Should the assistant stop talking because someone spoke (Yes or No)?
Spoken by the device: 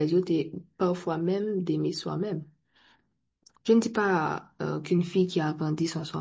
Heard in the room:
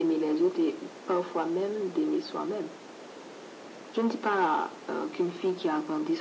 No